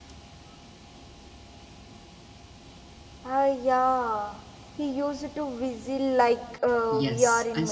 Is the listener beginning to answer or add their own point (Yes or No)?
Yes